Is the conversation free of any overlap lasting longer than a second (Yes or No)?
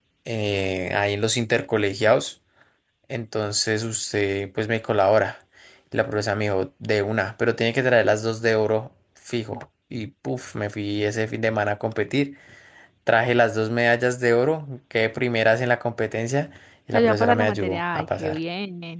No